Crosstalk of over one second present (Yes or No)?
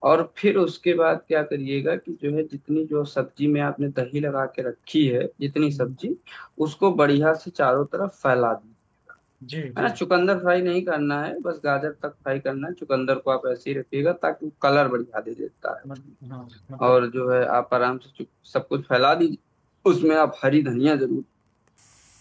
No